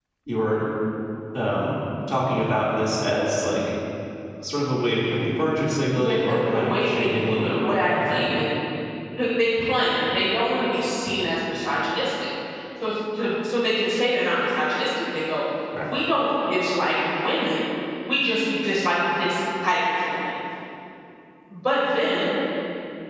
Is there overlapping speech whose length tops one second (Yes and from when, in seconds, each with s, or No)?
Yes, from 6.0 s